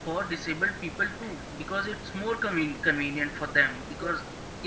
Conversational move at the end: listening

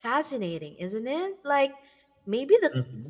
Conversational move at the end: listening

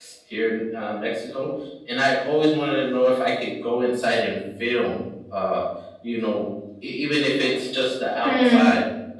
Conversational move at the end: taking over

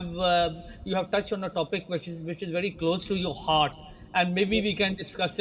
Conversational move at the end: listening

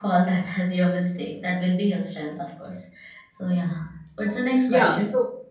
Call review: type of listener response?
taking over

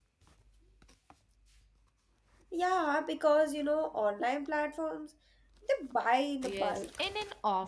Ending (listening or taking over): taking over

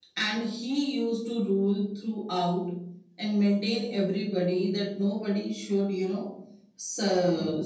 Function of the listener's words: listening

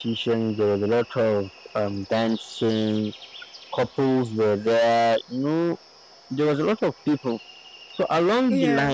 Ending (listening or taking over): listening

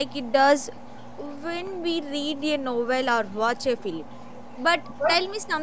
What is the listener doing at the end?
listening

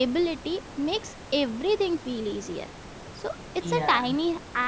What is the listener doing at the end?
listening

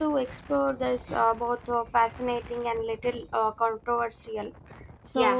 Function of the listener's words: listening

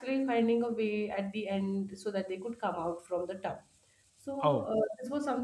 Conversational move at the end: listening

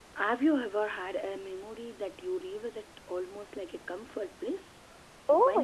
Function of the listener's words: taking over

